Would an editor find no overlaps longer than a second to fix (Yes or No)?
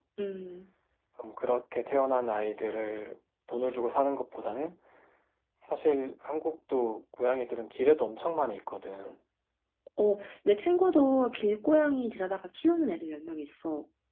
Yes